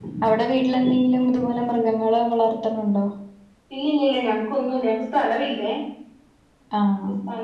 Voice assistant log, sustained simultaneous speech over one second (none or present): none